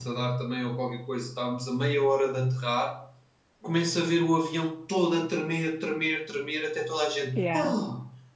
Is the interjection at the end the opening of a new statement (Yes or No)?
No